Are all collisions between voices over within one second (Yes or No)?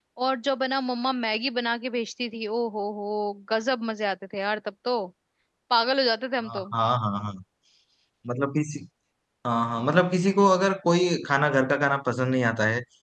Yes